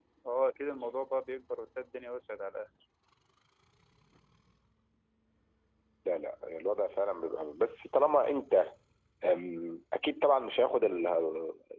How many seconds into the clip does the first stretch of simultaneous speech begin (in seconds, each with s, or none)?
none